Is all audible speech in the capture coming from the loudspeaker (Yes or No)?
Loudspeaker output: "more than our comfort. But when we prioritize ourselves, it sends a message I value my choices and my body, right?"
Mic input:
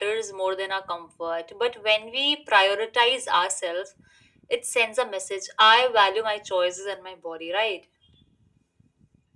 Yes